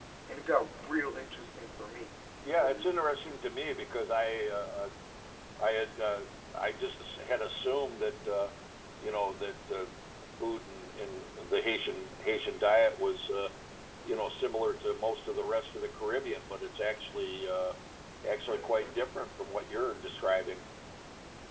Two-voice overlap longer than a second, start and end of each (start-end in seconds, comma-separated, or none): none